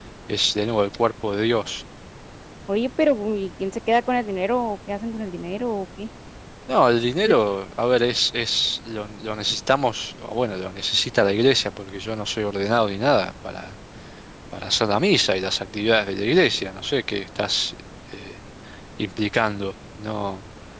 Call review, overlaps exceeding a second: none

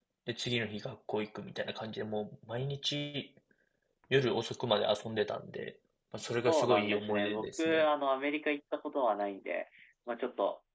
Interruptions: present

